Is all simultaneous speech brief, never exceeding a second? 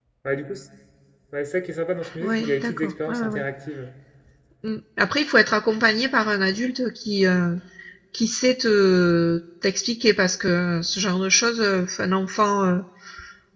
No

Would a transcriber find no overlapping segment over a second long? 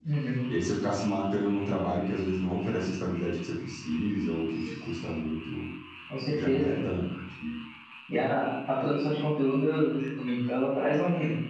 Yes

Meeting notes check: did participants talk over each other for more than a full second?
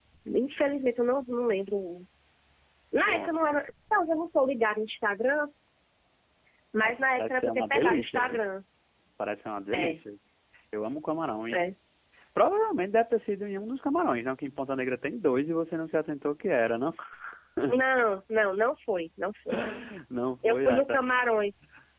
Yes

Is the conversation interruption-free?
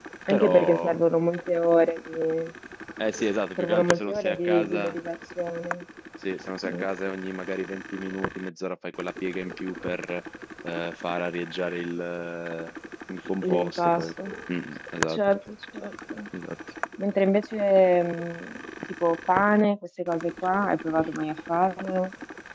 No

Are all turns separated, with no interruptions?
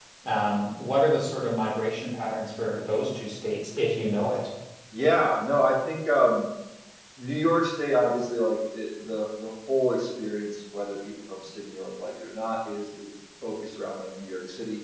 Yes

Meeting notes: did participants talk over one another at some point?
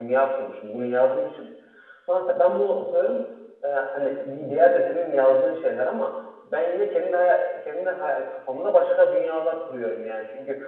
No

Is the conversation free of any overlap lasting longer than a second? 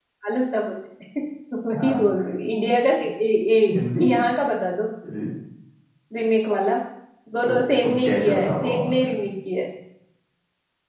No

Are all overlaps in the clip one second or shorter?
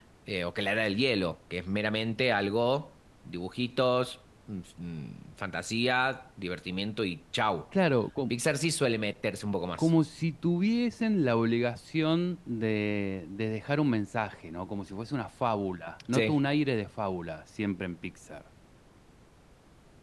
Yes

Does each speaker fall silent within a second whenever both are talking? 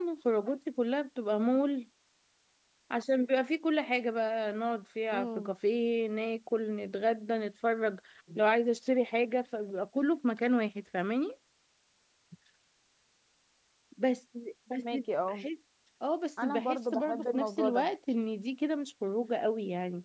No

